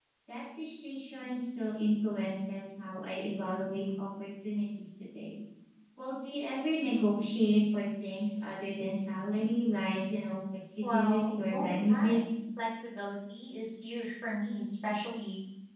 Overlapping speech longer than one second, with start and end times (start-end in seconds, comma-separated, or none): 10.8-12.2